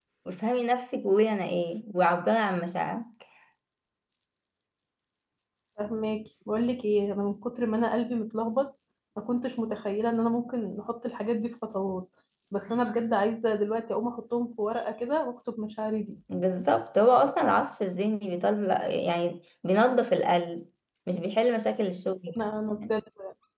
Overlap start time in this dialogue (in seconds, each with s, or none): none